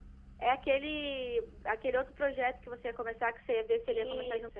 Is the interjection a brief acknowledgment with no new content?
No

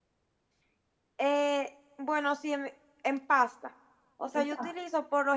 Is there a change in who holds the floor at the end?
No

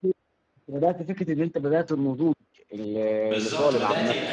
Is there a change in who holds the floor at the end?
Yes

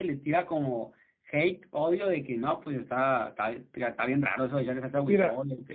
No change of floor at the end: No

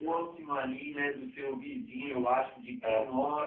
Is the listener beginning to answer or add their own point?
No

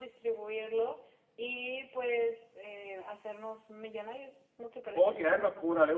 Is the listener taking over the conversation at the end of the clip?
Yes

